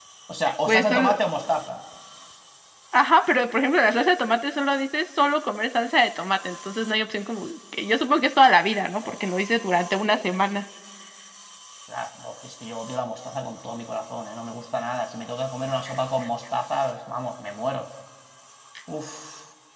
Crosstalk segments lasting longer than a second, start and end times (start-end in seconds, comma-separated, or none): none